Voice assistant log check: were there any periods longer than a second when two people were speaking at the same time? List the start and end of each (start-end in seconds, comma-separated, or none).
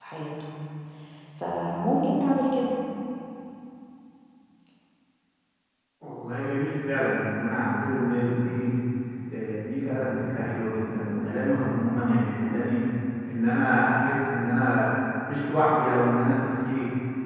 none